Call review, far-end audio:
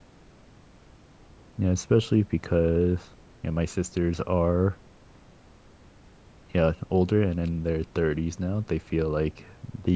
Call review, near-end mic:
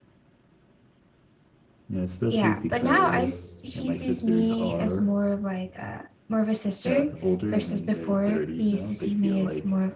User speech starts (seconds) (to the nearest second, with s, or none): 2 s